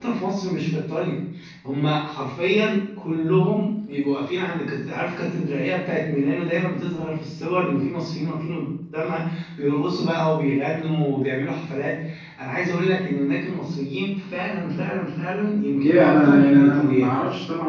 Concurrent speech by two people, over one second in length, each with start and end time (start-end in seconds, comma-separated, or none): 15.8-17.1